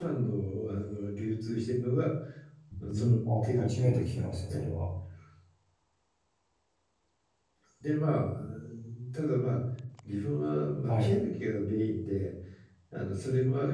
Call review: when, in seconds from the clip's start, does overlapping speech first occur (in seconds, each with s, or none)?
2.9 s